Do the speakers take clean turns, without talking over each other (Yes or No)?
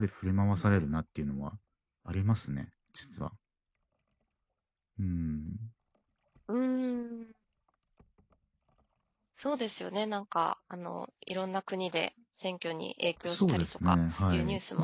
No